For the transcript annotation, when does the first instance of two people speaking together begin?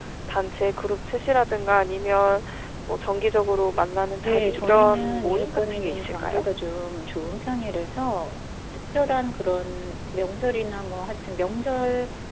4.2 s

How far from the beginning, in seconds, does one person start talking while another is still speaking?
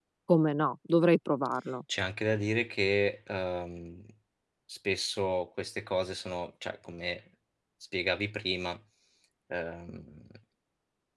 none

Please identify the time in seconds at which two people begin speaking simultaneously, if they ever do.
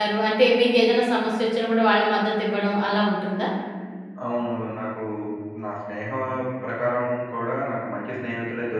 none

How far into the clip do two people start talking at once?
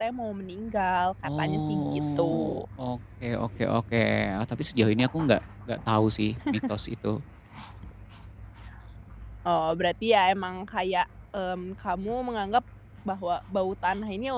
1.2 s

